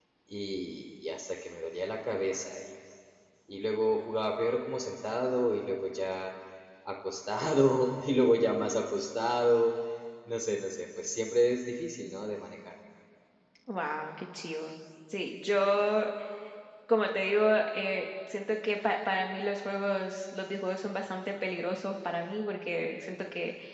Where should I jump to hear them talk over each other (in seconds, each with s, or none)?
none